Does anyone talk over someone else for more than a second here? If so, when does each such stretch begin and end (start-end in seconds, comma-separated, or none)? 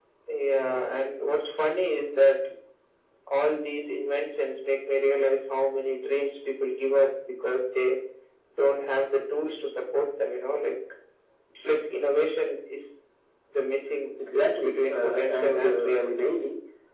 14.2-16.3